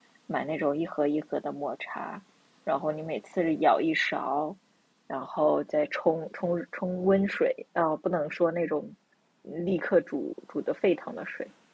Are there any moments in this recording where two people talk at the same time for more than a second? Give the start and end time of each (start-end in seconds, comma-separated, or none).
none